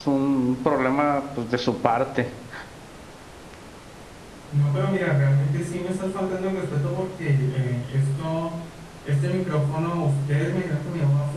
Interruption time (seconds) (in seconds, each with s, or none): none